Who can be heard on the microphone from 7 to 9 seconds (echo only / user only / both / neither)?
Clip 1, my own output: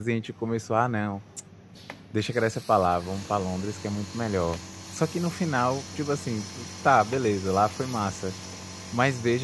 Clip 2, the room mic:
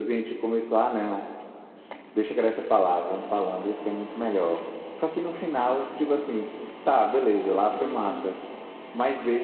both